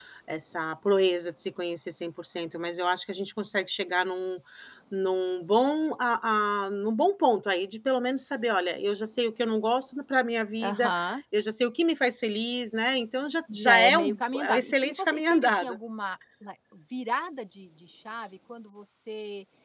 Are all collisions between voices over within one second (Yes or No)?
No